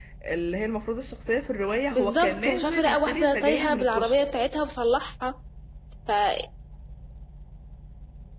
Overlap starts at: 2 s

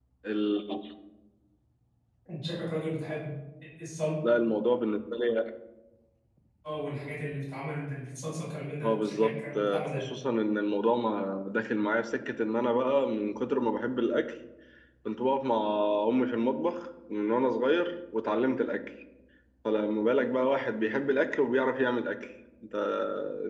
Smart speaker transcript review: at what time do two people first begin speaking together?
9 s

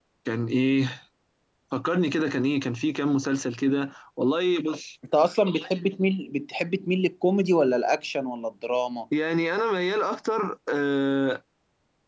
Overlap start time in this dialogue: none

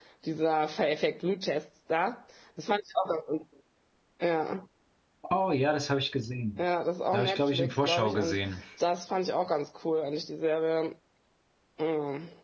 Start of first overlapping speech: 7 s

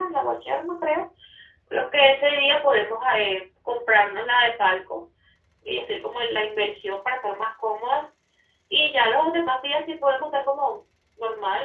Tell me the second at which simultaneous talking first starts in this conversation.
none

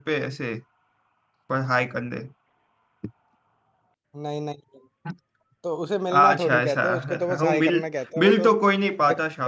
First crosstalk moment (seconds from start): 6 s

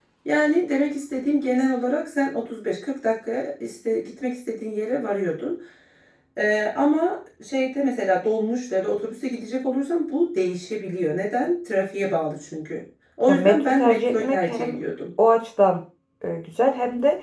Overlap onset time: 13 s

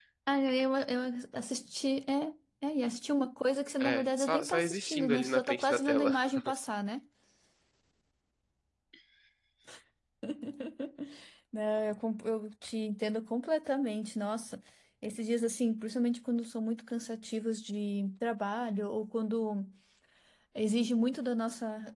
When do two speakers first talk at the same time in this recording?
4 s

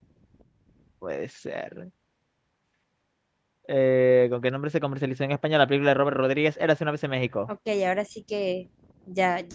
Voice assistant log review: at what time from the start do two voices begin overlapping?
none

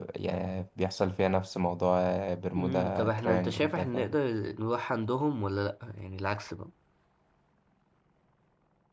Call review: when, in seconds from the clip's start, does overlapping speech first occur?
3 s

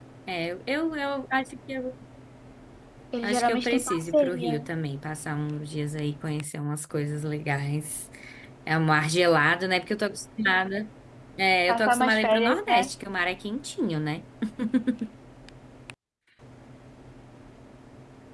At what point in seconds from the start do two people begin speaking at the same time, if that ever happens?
3 s

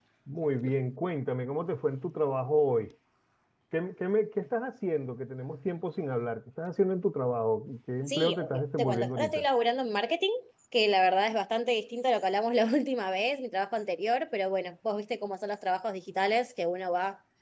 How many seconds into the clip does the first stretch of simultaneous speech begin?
8 s

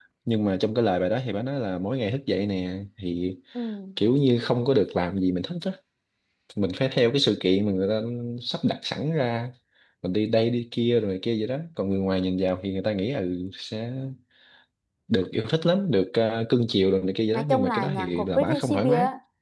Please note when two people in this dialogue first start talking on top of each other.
17 s

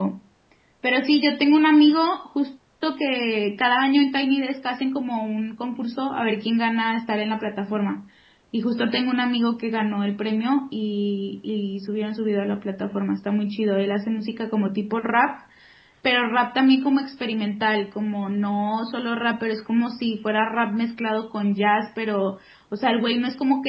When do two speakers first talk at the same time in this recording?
none

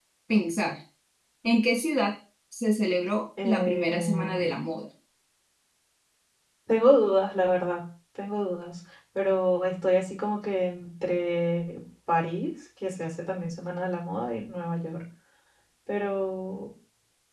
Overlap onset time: 3 s

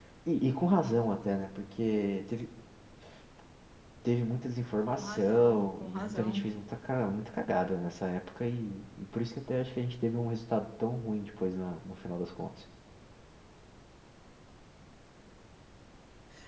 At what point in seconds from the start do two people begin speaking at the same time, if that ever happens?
5 s

